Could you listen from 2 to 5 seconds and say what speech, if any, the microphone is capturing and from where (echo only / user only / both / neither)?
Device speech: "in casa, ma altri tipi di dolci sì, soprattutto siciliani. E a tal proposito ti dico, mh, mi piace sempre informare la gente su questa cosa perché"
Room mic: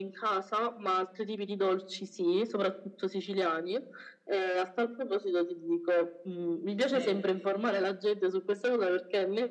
echo only